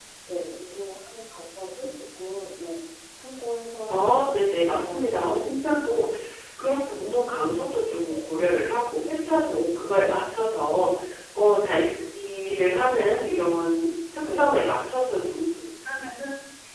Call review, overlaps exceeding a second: present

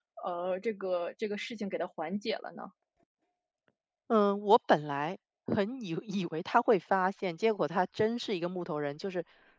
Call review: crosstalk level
none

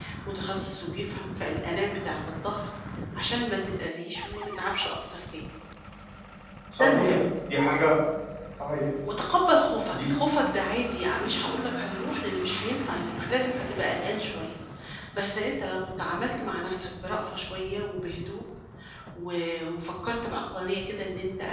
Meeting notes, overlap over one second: none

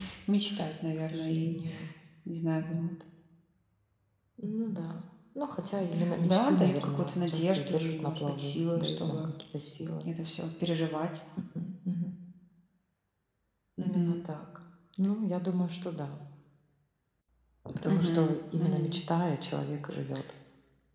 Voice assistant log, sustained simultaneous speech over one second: present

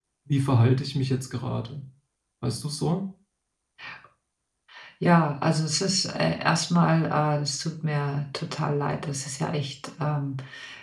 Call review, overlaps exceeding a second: none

